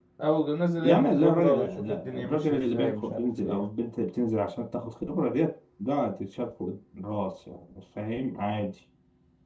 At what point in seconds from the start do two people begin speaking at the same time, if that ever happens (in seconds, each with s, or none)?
0.8 s